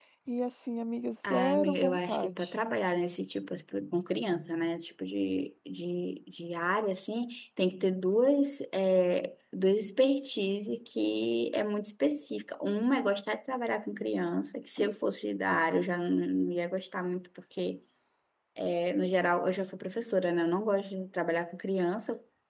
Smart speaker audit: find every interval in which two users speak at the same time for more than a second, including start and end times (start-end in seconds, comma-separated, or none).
1.3-2.5